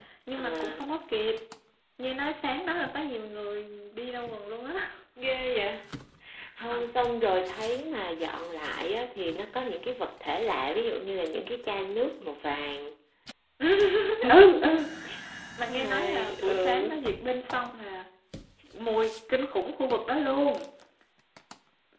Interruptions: present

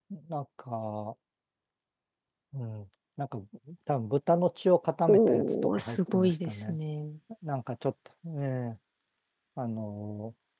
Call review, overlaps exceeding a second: present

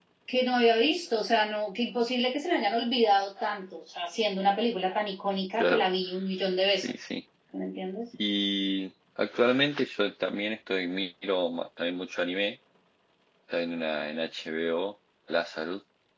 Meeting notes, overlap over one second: none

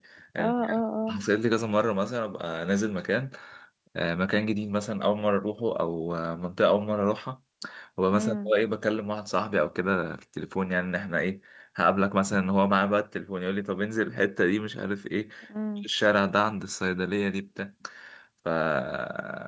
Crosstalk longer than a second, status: none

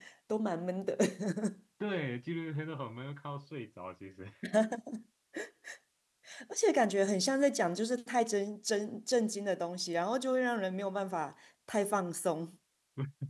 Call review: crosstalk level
none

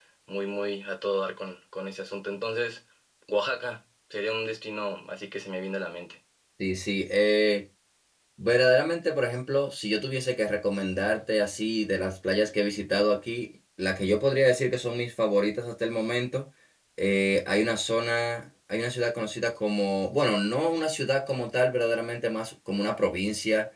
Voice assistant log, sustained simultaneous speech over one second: none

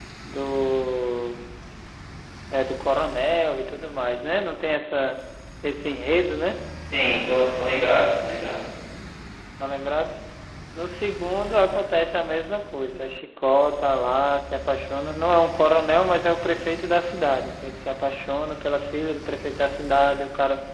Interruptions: none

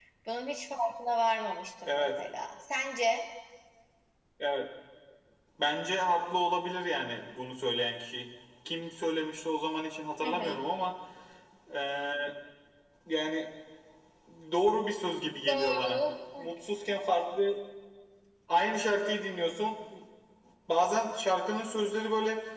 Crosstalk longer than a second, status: none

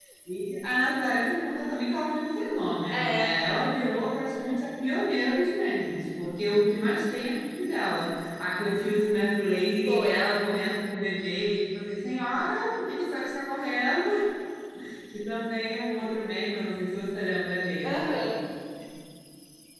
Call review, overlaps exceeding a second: none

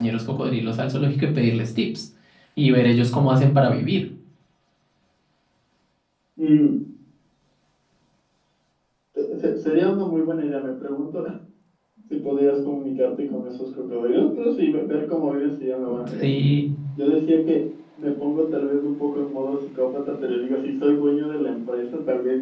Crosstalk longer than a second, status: none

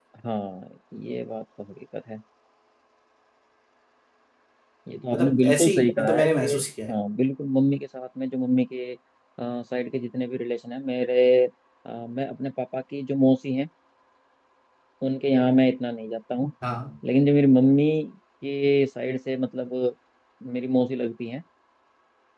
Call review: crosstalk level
present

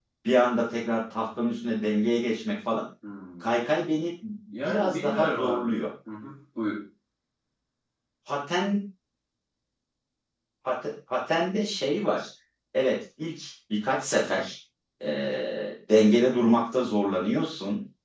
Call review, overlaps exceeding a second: present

